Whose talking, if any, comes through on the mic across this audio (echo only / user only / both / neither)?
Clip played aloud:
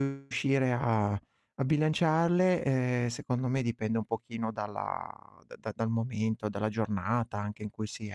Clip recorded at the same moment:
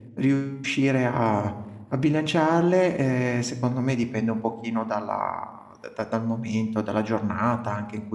echo only